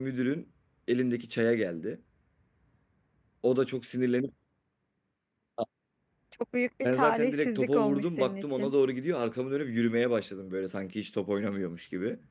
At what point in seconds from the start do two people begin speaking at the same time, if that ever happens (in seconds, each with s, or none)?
6.8 s